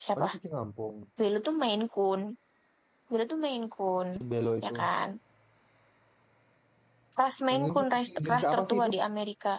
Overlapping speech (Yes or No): Yes